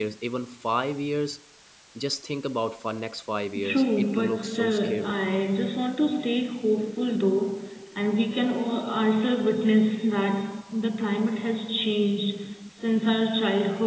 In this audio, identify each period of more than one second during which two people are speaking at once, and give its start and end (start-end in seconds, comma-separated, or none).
3.6-5.2